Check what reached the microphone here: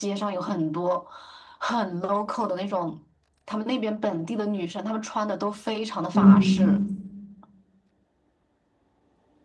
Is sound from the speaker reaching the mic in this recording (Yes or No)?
Yes